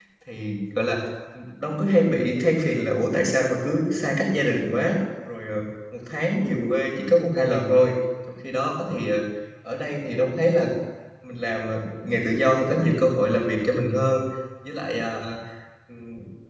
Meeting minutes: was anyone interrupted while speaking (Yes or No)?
No